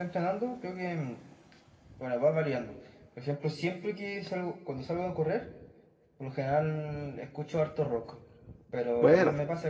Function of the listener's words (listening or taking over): listening